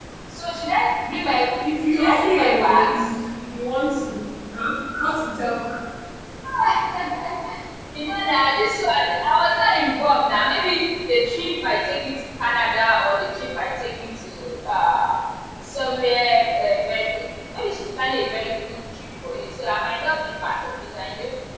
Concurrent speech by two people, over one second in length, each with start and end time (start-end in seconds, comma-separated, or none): 1.9-3.1